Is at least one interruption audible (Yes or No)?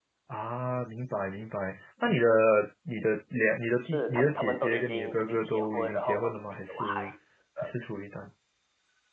Yes